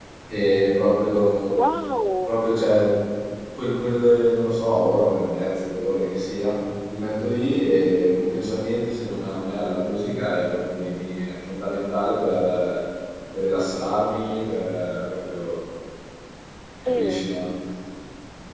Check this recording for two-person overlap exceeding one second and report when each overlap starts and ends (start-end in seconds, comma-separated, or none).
none